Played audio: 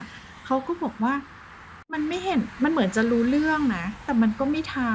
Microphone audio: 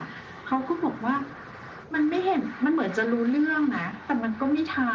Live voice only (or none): none